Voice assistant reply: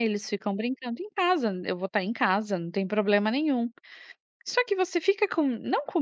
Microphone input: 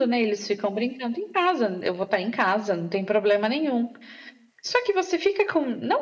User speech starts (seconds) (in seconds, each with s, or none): none